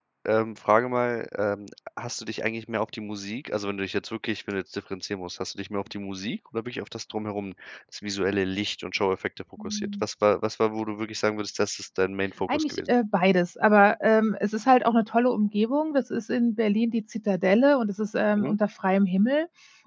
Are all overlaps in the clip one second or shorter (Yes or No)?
Yes